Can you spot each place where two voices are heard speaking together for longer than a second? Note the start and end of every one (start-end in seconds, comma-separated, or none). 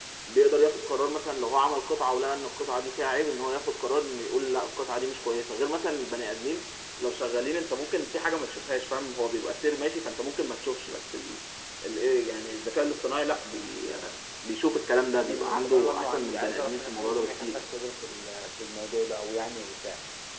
15.3-17.6